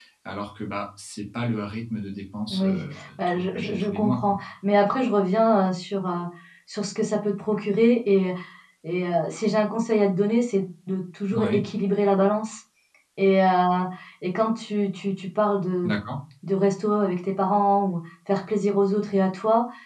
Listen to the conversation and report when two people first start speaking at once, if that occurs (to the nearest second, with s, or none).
3 s